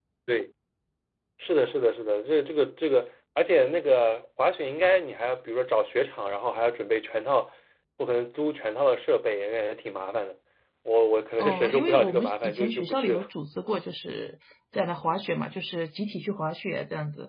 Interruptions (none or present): present